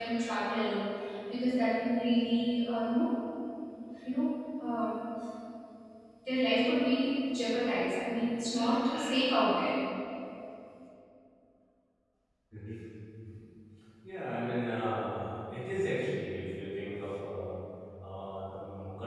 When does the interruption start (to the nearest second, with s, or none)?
none